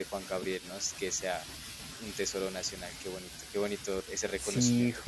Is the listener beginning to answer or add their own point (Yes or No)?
Yes